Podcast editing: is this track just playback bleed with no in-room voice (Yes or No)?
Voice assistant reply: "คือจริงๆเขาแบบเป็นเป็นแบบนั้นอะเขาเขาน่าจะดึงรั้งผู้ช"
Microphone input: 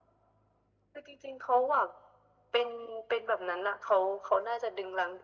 Yes